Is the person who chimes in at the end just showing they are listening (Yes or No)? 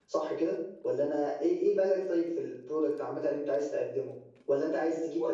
Yes